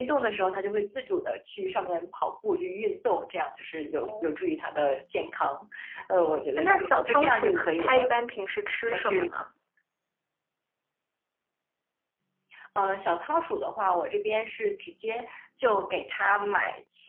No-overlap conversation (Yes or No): No